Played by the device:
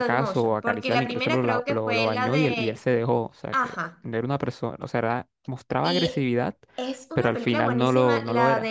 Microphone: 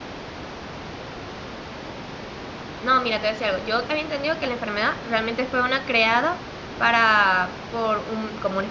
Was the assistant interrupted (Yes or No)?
Yes